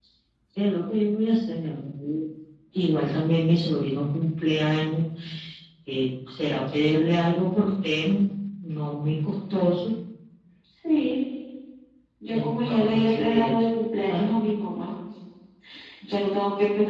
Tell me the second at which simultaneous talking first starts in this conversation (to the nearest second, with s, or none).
12 s